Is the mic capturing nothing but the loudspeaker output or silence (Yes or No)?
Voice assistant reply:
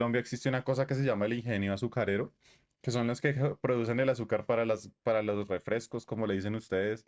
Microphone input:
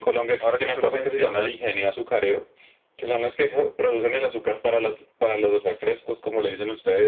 No